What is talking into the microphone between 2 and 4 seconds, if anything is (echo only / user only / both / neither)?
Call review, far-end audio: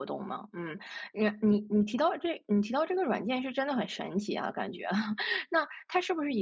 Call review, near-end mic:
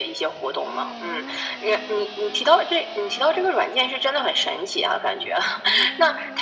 echo only